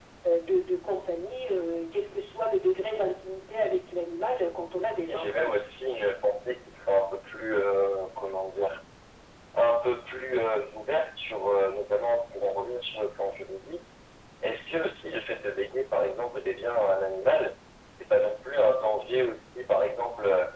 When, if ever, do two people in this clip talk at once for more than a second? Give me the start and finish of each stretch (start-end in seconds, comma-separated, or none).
none